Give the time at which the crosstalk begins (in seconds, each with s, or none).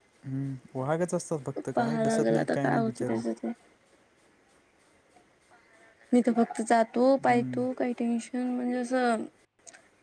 1.8 s